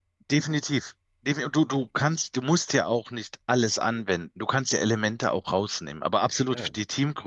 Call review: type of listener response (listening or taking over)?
listening